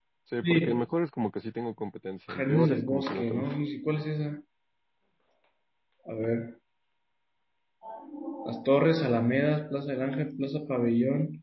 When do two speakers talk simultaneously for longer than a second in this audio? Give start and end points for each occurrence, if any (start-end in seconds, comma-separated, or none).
2.3-3.5